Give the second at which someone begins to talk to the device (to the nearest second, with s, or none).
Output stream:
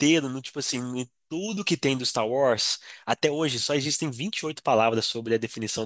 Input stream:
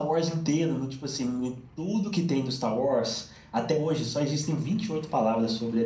none